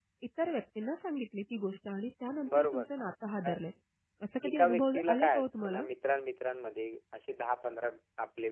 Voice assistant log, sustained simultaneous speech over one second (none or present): present